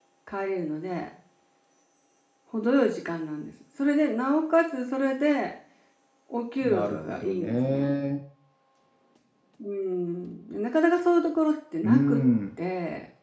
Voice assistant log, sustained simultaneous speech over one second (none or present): present